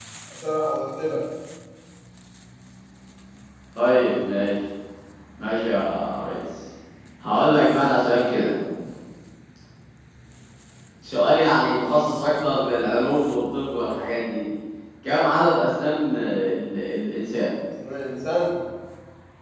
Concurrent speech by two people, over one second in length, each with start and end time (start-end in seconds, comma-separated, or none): none